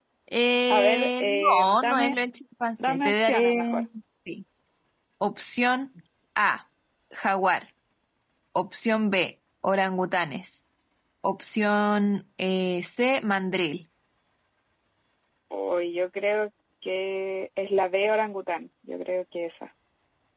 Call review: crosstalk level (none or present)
present